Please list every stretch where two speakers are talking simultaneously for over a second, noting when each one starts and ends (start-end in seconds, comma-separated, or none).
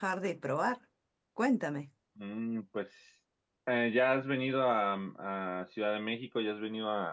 none